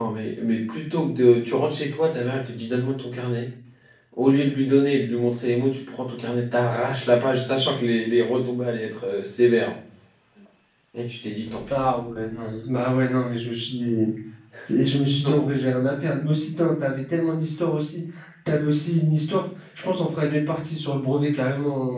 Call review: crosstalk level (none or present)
none